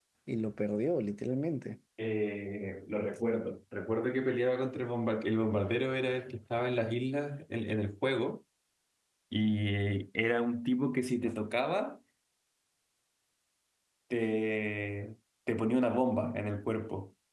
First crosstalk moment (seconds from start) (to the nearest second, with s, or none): none